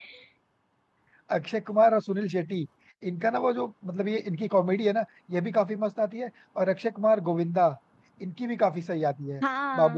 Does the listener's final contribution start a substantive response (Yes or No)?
Yes